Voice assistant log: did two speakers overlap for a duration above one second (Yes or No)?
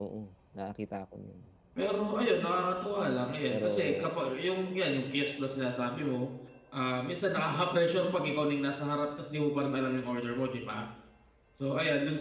No